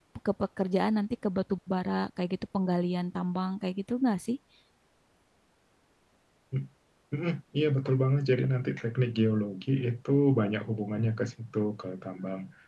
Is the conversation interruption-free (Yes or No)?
Yes